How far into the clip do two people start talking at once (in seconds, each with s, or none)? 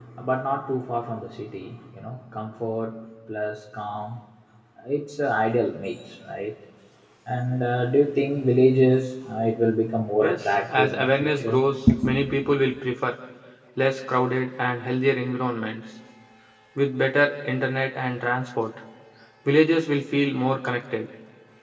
10.2 s